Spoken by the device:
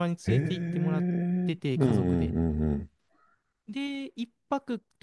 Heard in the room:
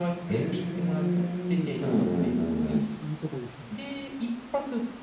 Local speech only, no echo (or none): で、なんかすごいいいとこですね。